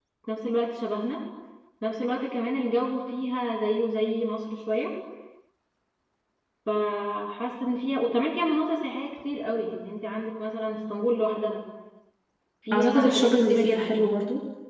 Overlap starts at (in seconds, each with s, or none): 12.7 s